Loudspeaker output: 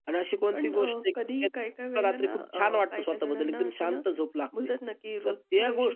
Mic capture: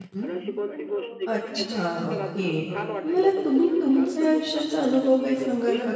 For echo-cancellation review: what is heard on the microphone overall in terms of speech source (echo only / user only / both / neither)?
both